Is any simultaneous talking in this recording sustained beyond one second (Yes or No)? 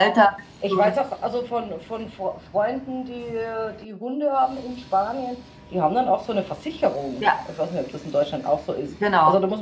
No